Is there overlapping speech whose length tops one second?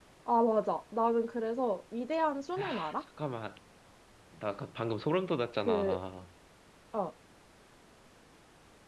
No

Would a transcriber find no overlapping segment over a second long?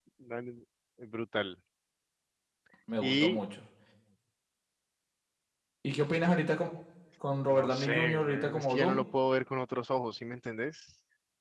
No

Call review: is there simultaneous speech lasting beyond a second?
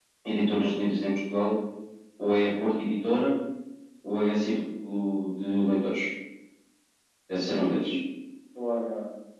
No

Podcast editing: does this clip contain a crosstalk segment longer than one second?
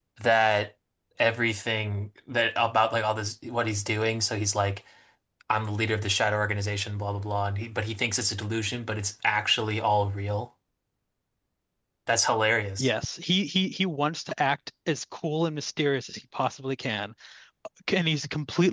No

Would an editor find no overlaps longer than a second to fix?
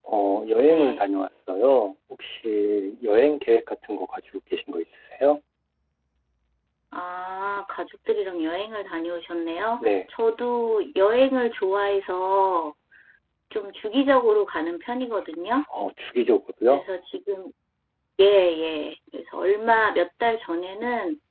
Yes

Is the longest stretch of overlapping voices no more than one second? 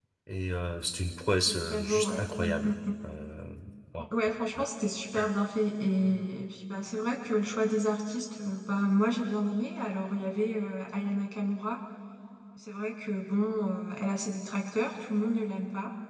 No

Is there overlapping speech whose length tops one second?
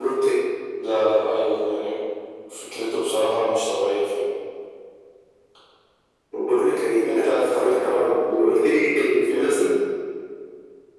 Yes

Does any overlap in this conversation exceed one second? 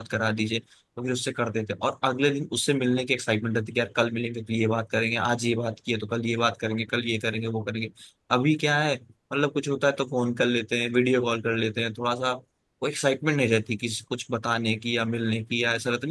No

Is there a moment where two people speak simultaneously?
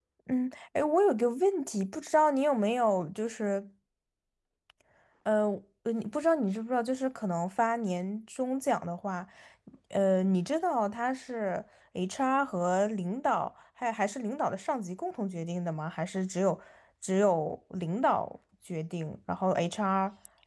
No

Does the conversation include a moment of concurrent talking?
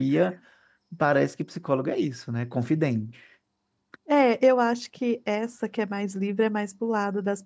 No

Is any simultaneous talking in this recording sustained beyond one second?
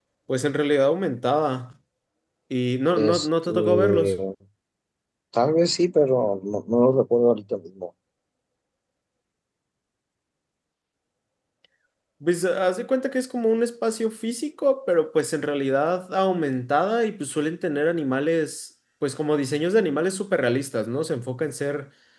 Yes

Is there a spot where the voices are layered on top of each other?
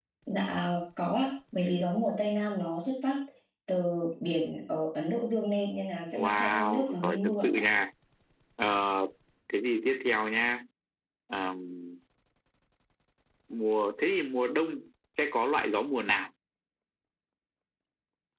Yes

